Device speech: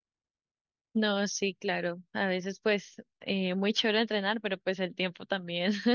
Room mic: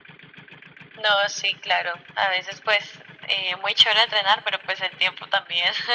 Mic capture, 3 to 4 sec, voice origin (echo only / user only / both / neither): echo only